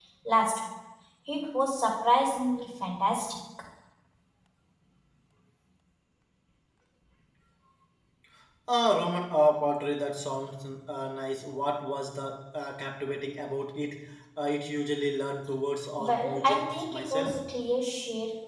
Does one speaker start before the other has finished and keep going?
Yes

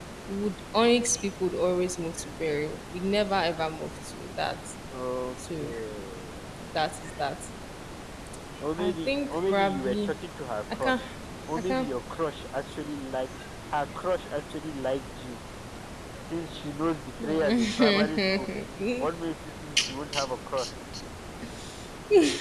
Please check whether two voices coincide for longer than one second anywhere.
Yes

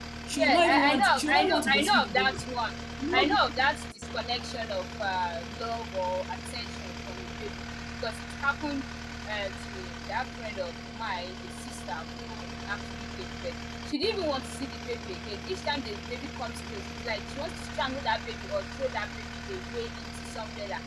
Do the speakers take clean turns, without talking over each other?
No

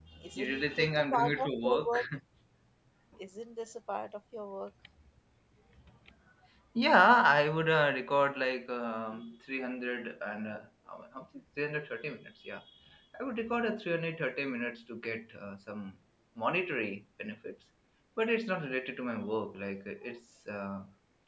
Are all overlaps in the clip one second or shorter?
No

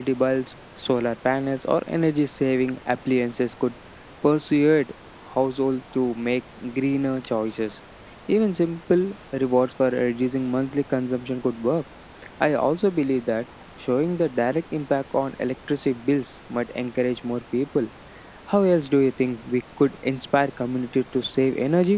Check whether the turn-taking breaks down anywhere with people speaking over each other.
No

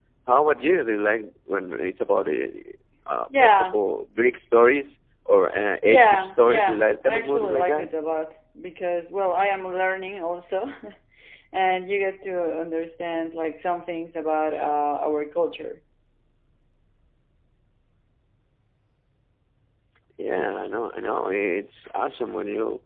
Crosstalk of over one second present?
Yes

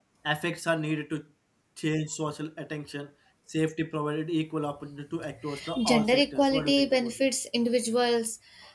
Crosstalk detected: Yes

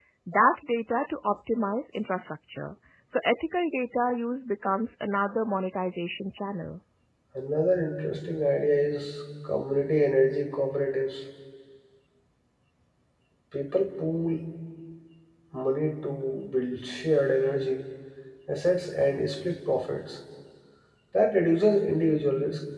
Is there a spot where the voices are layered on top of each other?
No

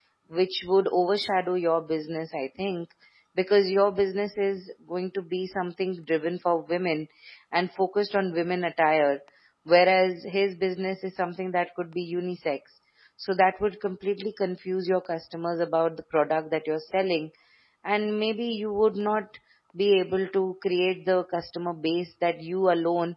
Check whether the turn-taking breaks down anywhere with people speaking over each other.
No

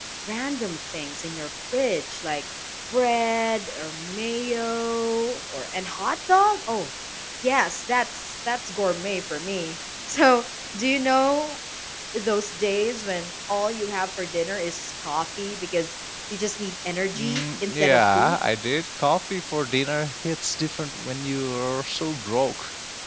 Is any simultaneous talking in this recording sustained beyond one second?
Yes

